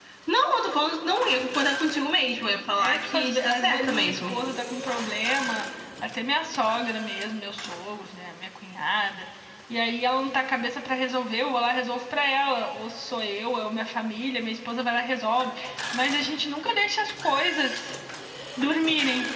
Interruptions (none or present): present